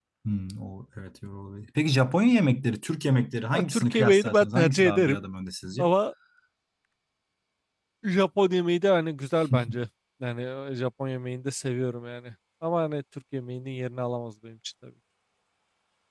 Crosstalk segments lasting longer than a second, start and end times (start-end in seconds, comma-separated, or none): 3.5-5.2